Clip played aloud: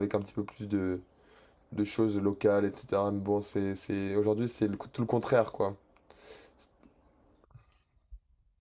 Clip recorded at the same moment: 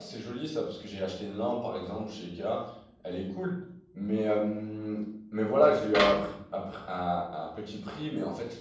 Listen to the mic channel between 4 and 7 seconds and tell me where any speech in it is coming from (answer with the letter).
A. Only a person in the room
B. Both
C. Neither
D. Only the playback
A